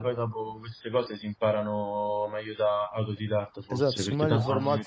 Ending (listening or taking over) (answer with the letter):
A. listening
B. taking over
B